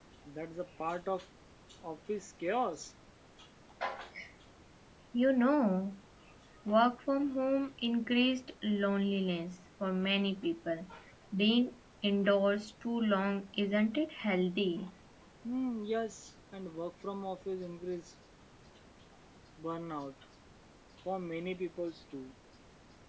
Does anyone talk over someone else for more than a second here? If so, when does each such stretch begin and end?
none

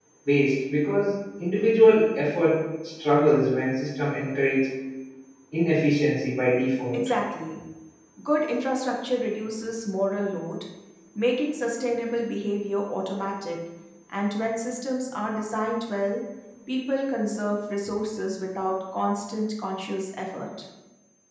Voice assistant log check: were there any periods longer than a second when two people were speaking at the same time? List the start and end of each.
none

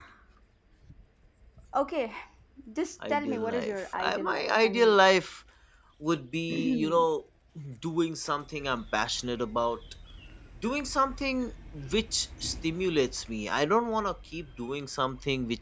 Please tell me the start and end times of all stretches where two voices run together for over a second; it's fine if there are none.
3.1-5.0

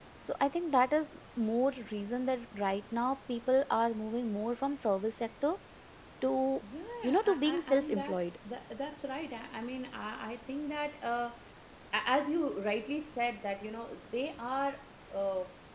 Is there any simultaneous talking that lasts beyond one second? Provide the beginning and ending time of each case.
7.0-8.3

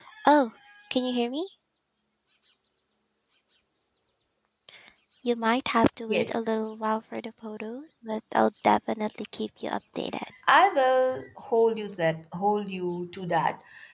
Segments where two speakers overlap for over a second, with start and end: none

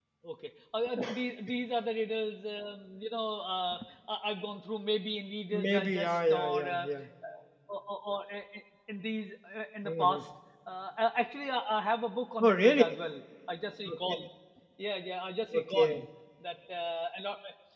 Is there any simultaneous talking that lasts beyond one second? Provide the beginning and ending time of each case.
5.5-6.9

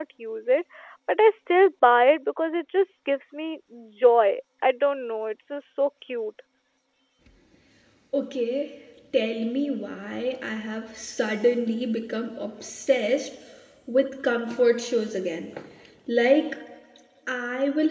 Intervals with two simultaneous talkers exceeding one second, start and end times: none

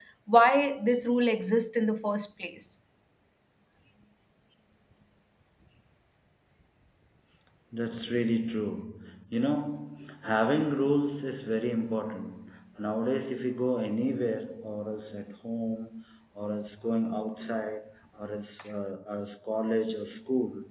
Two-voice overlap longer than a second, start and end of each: none

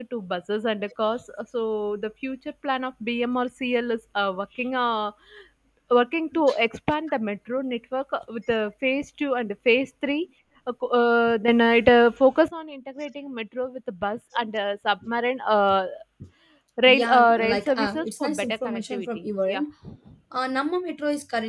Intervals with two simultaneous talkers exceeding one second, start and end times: 16.8-19.6

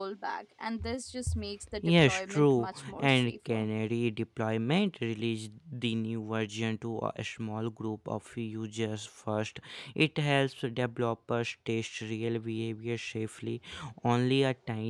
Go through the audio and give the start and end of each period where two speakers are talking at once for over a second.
1.8-3.6

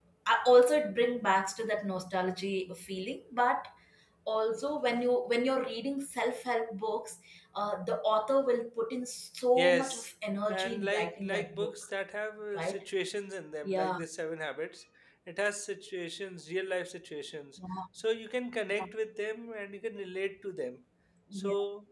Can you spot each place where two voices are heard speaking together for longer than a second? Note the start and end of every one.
10.5-11.7

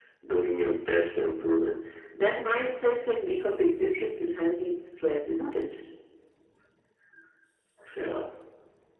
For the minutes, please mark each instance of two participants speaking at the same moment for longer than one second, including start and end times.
none

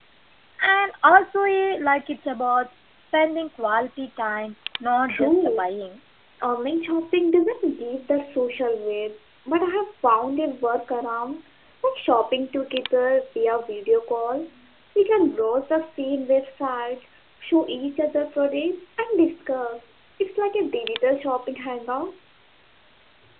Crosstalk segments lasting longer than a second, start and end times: none

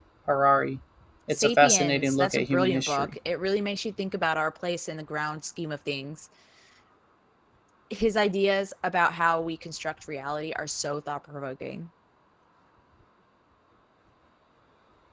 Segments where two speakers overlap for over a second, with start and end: 1.3-3.1

